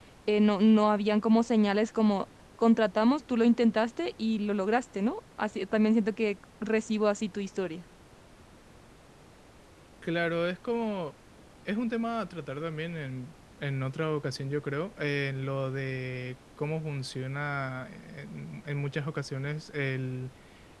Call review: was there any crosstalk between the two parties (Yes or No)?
No